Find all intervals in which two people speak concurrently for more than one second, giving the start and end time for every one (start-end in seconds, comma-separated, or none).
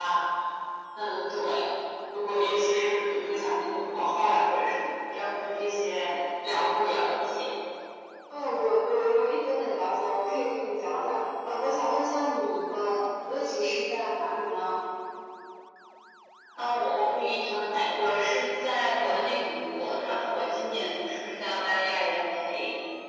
none